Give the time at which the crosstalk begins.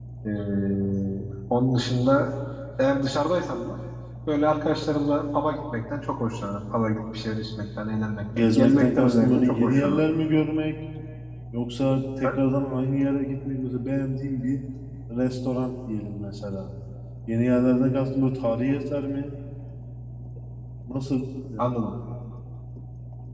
8.3 s

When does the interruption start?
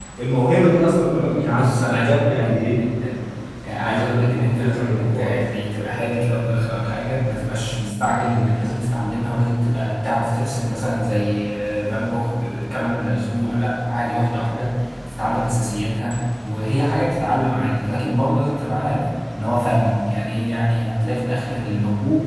1.3 s

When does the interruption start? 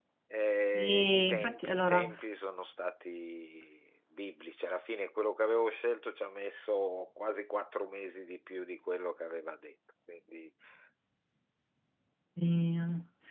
0.8 s

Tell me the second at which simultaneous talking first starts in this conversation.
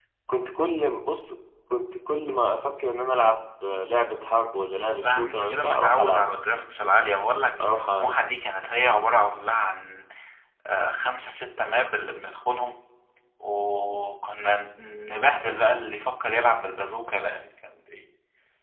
5.0 s

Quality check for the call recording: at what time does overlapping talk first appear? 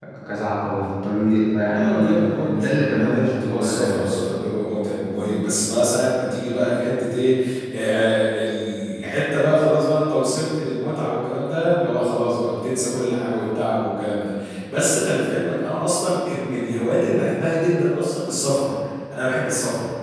1.6 s

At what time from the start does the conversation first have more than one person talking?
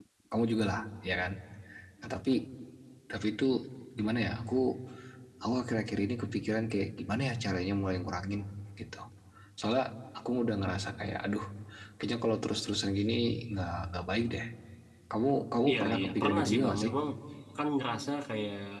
15.7 s

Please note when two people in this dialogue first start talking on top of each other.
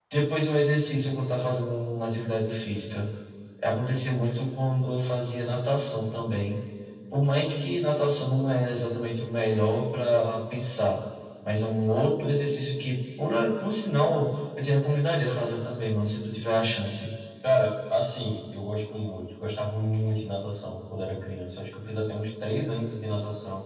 none

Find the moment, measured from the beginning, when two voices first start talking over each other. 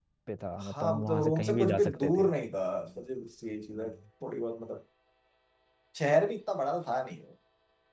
0.6 s

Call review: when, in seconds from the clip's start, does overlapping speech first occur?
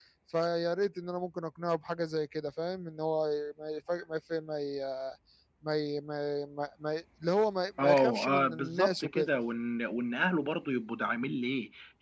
7.8 s

